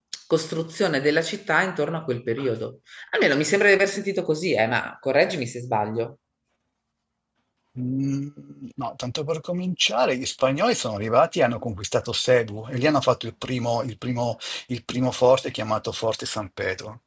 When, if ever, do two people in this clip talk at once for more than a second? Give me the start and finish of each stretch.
none

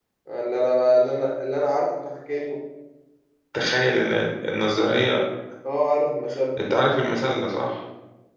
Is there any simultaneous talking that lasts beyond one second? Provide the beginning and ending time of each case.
none

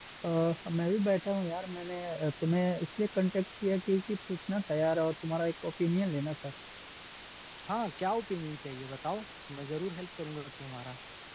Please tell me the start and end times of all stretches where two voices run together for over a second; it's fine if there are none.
none

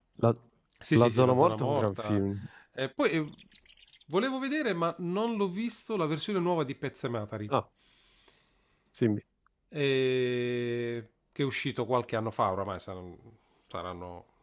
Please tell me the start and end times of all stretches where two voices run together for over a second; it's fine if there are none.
1.0-2.2

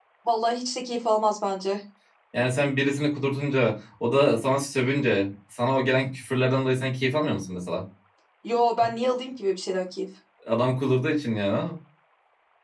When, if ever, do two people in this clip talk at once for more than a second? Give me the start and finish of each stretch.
none

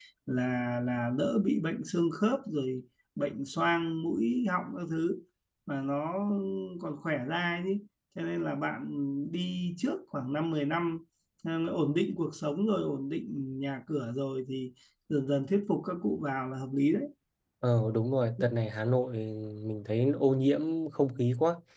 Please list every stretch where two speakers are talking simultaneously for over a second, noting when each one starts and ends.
none

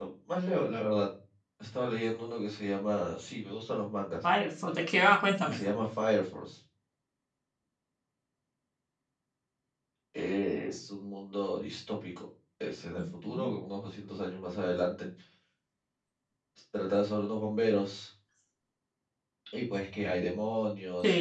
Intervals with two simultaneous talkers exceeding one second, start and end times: none

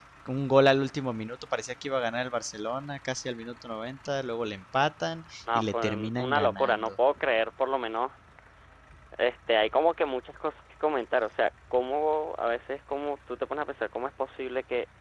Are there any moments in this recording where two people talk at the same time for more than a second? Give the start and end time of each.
5.5-6.9

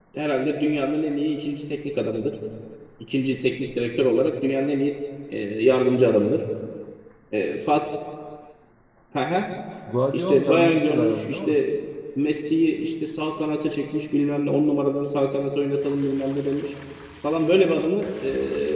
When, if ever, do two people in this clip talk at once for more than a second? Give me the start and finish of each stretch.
10.1-11.6

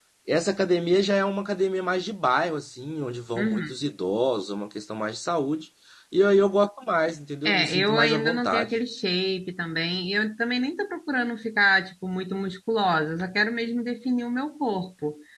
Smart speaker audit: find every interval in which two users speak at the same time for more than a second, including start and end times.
7.4-8.7

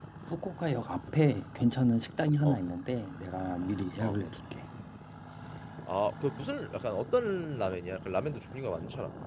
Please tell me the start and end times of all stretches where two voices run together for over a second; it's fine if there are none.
none

